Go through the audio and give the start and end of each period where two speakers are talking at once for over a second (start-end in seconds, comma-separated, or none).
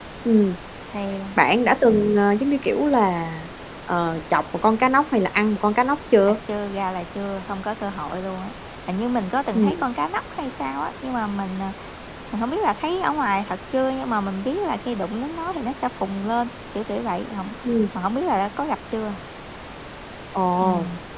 none